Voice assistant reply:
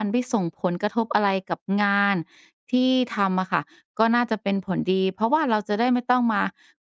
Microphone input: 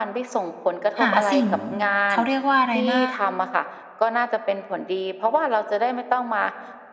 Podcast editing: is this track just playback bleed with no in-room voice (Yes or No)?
No